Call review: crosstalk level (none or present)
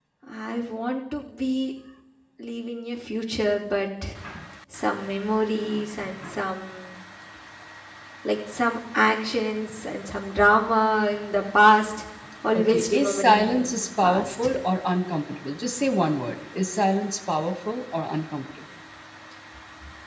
present